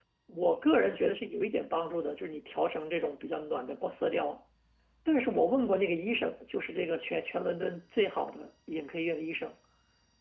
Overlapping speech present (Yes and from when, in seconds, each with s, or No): No